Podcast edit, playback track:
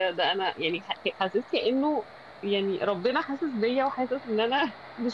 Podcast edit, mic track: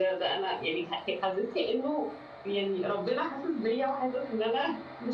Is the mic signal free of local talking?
Yes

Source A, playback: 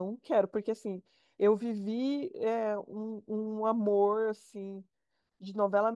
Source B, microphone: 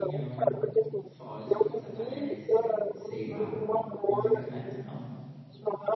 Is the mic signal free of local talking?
No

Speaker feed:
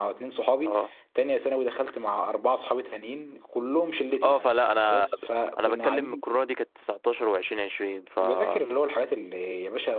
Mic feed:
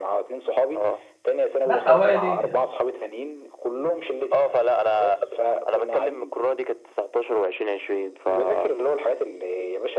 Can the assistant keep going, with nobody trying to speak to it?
No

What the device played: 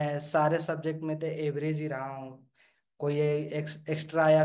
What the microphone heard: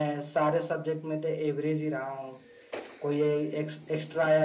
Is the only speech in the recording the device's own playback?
Yes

